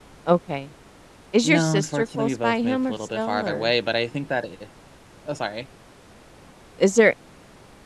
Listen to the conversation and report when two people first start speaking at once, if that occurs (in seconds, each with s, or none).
1.4 s